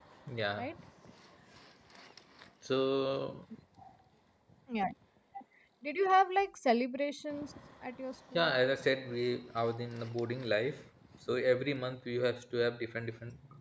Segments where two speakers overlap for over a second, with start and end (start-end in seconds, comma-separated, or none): none